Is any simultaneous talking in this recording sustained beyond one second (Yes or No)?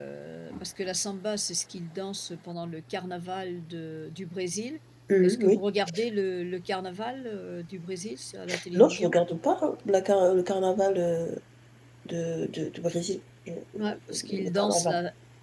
Yes